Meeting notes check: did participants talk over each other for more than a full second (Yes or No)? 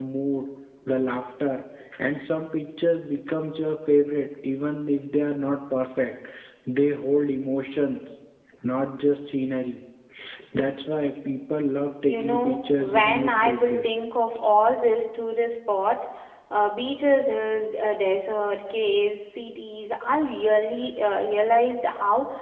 Yes